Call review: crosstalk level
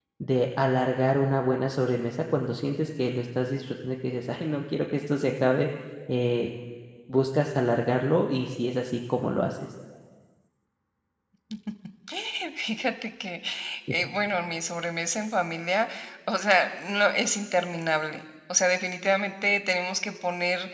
none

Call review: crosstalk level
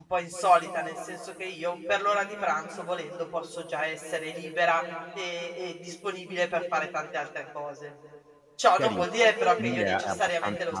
present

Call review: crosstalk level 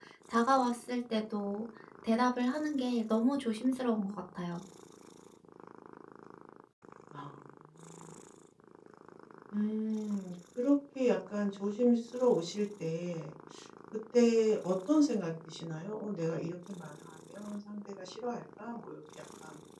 none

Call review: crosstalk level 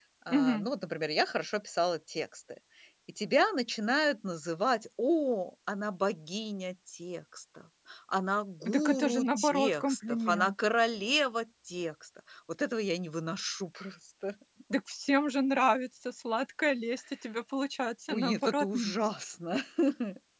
present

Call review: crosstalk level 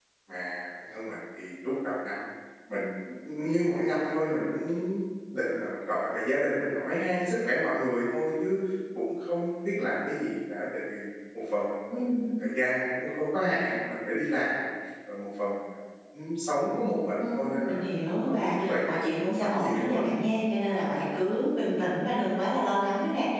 present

